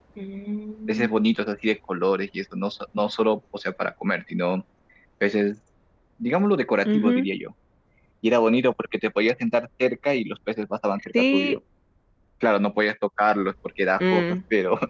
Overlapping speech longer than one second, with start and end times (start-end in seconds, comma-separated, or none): none